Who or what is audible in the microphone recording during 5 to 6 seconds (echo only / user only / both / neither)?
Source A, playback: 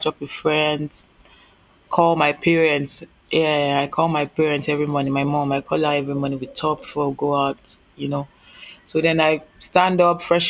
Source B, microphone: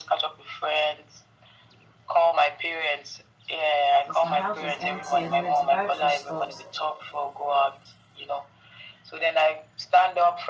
both